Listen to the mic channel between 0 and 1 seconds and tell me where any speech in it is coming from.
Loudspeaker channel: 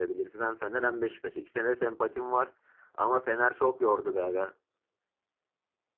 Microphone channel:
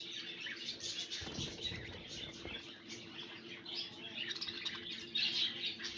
neither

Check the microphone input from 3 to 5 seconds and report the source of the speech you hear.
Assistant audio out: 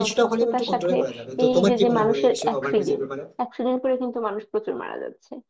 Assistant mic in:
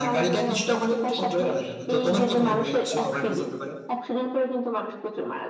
echo only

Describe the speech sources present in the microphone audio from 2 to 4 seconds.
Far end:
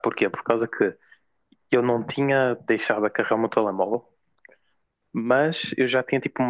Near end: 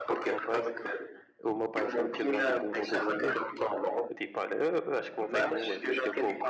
both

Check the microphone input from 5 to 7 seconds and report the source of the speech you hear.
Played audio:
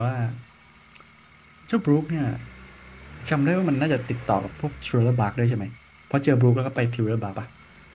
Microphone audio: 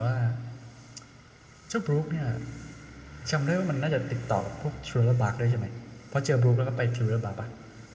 echo only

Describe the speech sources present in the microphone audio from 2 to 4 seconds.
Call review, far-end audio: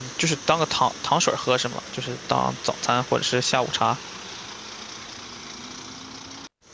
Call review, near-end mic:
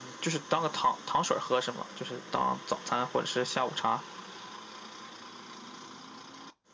echo only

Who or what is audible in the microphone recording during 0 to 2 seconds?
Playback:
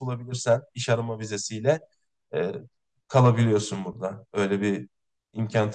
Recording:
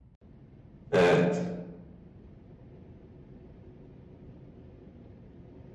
user only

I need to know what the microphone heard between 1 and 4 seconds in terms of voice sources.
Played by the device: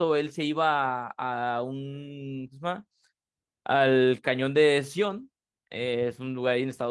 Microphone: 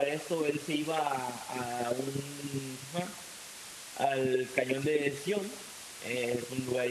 echo only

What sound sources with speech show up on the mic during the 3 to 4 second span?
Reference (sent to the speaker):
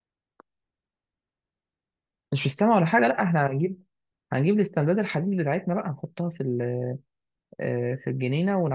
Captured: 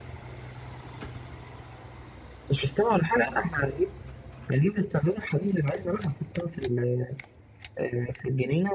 echo only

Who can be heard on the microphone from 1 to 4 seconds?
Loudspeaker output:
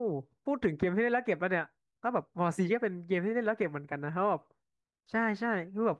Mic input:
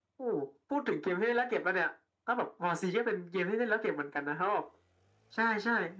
echo only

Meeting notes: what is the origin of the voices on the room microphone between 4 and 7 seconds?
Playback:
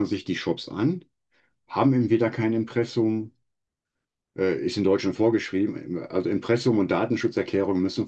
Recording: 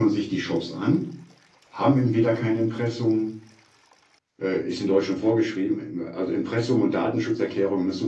echo only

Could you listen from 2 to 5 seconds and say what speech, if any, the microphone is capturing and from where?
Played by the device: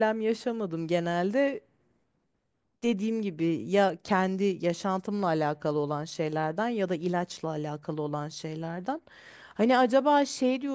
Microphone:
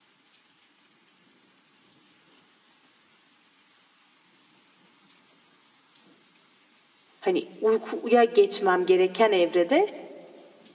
neither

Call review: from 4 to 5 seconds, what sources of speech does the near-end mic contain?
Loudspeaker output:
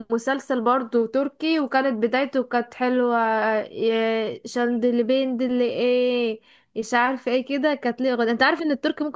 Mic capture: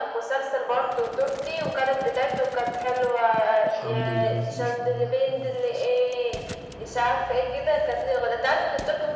both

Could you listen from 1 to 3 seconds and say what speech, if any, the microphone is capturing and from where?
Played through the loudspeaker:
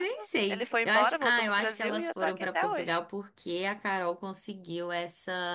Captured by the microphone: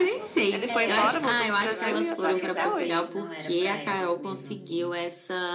both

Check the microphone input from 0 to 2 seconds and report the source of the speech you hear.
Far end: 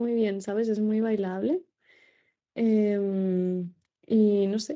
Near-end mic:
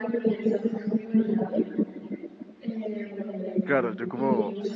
echo only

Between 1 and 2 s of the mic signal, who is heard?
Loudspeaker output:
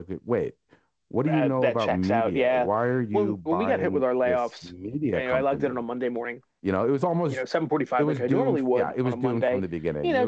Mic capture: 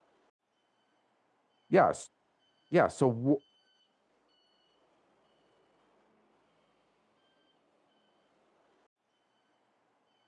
user only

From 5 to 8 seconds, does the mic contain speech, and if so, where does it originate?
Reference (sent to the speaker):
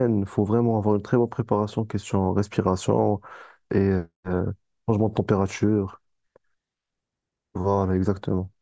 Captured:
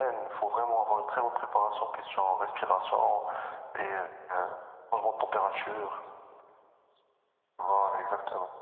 echo only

